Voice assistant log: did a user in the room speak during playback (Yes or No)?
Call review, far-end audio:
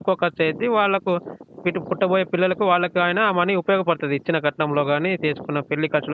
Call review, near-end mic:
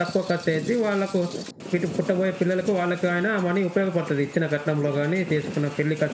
No